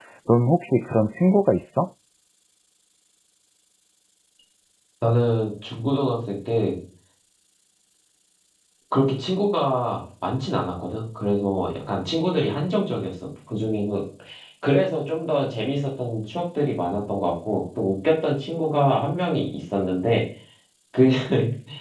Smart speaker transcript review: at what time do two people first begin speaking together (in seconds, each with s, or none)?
none